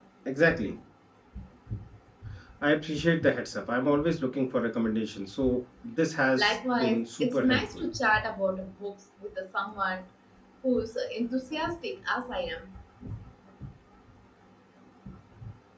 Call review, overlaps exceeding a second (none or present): present